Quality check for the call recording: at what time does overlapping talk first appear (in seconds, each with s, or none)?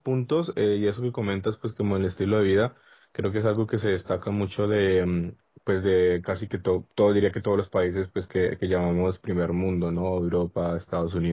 none